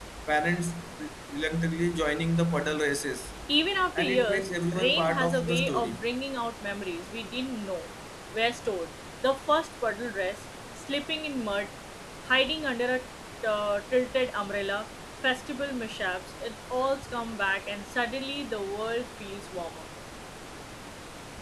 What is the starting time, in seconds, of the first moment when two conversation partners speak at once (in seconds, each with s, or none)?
4.0 s